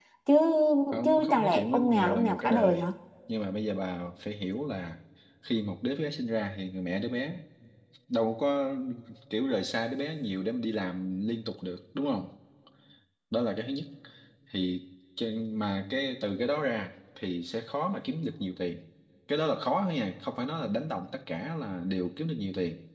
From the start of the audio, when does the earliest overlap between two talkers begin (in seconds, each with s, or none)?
1.0 s